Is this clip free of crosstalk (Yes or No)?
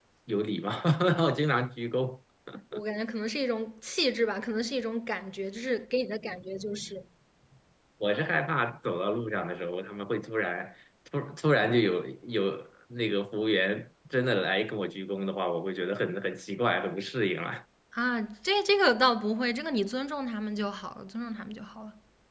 Yes